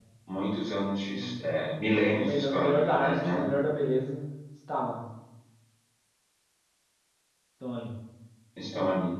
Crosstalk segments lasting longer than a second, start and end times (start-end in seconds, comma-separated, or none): 2.1-3.4